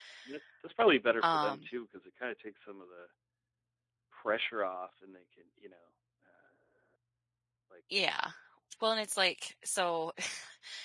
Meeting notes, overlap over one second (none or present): none